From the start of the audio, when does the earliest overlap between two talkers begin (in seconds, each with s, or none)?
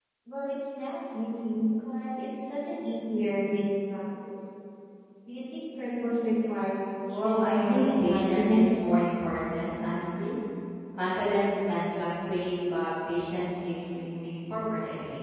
7.1 s